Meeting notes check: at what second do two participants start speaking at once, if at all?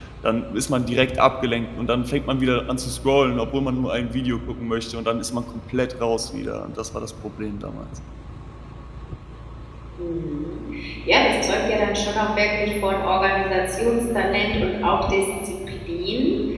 none

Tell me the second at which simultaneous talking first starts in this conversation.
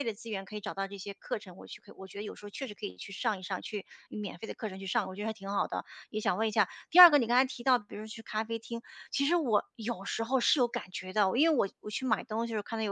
none

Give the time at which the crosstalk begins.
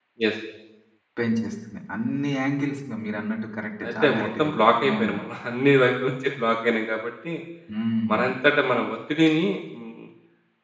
3.8 s

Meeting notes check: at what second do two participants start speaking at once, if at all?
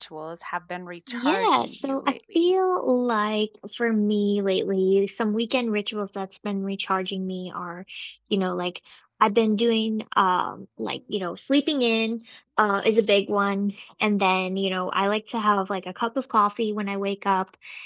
1.1 s

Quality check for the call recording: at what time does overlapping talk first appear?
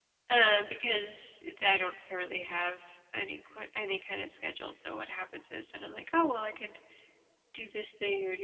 none

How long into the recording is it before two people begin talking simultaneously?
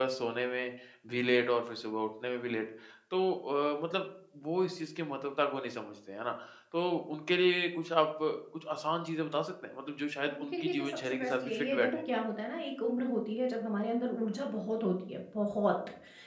10.3 s

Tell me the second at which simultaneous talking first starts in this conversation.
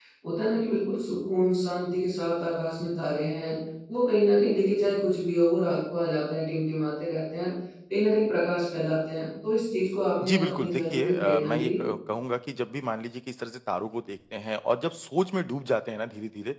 10.2 s

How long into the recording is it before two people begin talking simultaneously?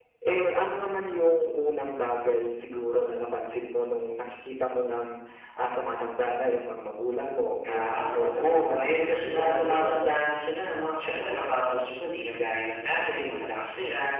7.6 s

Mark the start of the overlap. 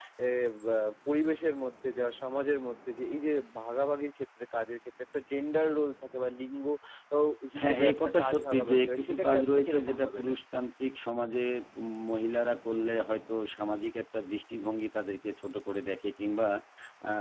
7.6 s

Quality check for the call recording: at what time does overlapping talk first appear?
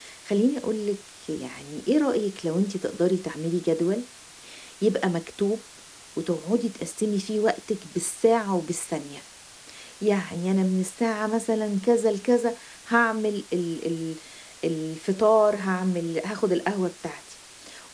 none

